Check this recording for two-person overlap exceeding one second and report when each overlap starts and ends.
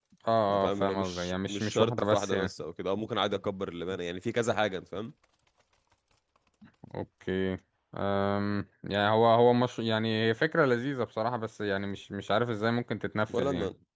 0.7-2.5

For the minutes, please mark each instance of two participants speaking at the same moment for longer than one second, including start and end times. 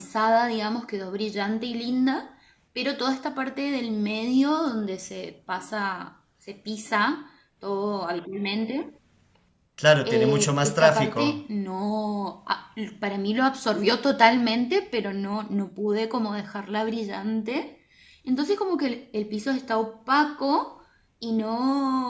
10.1-11.4

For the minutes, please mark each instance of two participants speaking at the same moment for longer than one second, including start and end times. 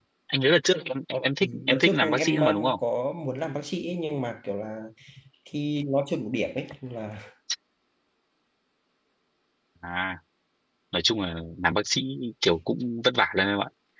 1.4-2.8

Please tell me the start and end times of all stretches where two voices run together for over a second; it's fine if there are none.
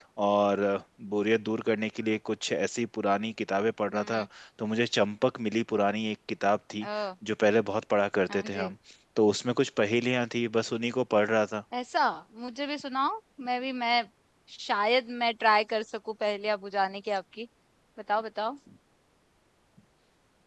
none

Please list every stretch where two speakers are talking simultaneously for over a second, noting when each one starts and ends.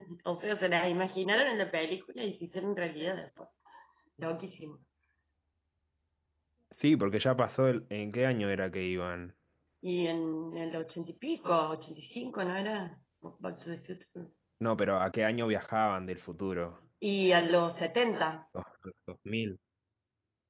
none

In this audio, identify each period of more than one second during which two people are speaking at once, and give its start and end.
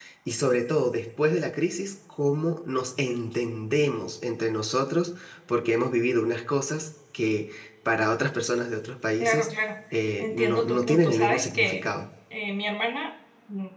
10.2-11.9

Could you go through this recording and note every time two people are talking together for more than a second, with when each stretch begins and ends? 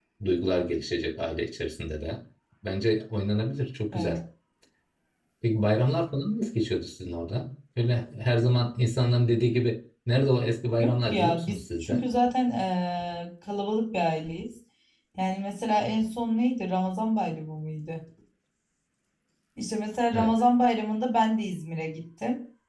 10.8-12.1

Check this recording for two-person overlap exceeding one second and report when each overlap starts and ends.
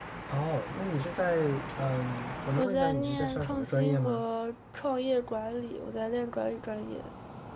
2.6-4.2

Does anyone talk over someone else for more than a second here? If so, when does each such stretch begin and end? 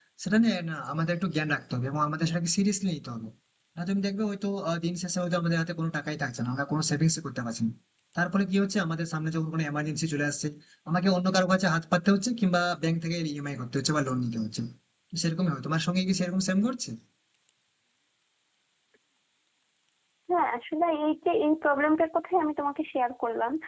none

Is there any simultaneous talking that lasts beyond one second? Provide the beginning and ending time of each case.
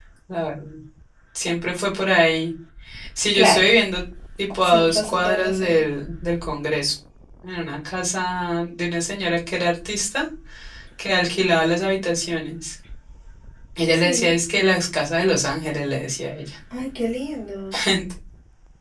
4.6-5.8

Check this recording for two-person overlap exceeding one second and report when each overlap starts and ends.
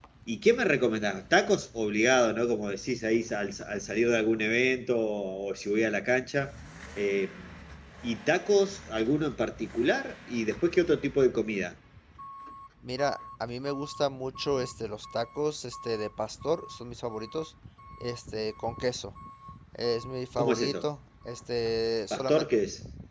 none

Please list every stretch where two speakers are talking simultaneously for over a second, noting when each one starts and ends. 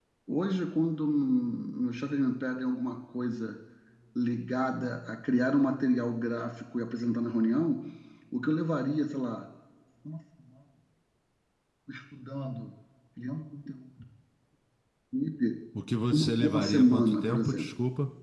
16.1-17.7

